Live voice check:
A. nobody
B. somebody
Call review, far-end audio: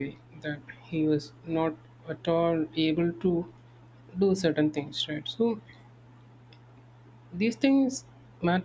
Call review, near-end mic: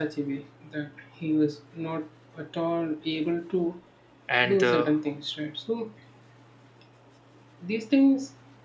B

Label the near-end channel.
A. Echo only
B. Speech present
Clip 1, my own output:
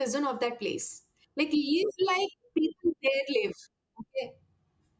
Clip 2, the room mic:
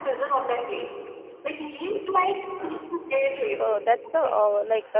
B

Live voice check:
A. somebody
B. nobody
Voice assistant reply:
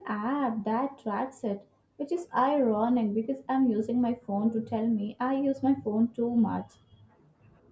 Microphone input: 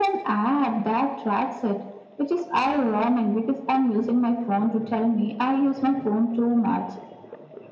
B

